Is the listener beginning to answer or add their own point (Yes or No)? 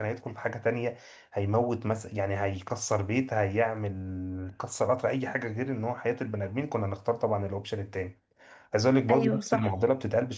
No